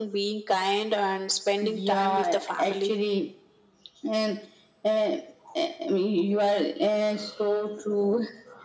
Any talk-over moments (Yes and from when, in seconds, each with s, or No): Yes, from 1.6 s